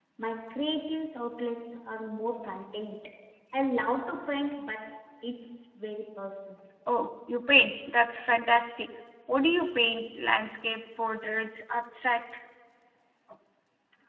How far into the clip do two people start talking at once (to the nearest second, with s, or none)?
none